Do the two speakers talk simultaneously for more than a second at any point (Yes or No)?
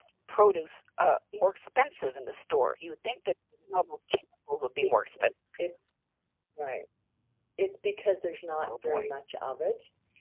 No